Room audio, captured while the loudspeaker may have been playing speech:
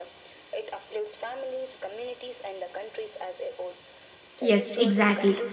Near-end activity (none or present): present